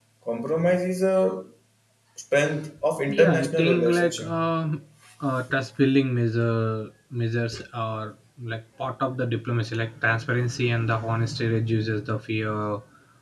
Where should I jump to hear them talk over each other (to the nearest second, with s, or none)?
3 s